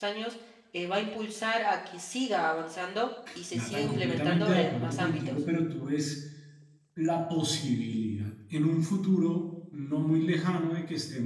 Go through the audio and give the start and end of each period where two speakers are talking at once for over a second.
3.5-5.4

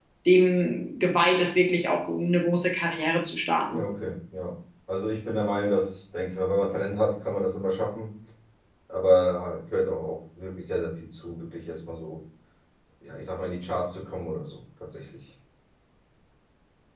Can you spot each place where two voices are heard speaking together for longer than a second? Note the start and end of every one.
none

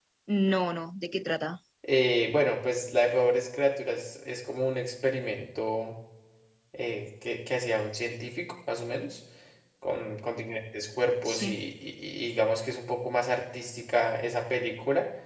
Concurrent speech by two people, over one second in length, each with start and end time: none

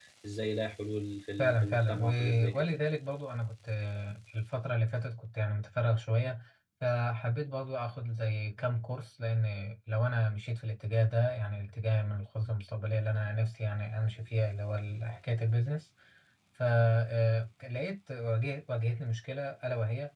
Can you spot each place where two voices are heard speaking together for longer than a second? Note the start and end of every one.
1.4-2.6

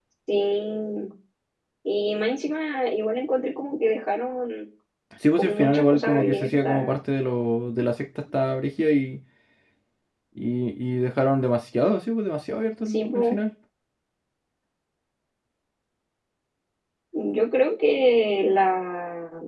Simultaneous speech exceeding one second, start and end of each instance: 5.4-7.0

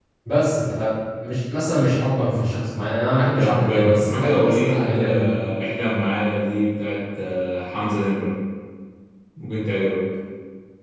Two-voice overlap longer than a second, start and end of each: 3.4-5.3

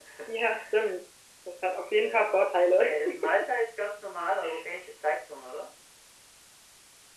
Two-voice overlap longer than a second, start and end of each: none

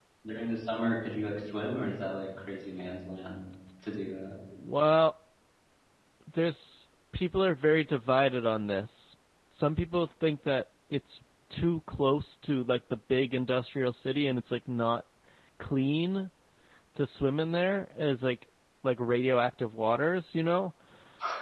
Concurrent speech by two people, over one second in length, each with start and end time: none

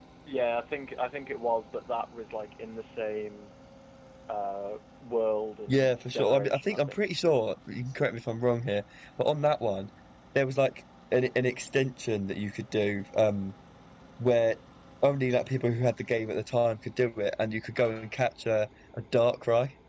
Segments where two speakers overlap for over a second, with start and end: 5.7-7.0

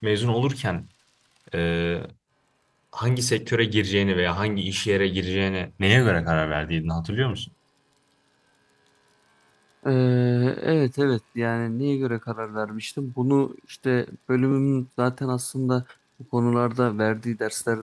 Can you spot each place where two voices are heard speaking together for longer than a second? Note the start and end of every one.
none

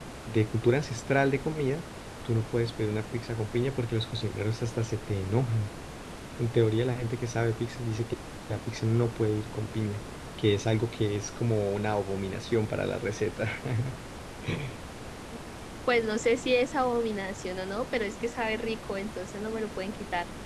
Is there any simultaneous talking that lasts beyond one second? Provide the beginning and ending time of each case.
none

